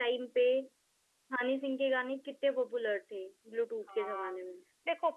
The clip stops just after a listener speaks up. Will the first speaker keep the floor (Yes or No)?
No